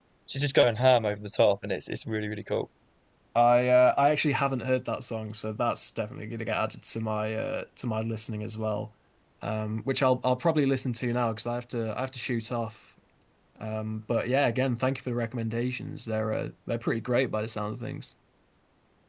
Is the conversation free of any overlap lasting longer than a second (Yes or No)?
Yes